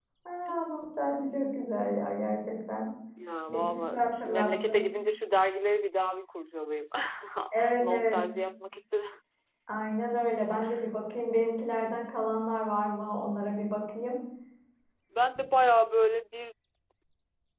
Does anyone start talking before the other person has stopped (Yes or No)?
Yes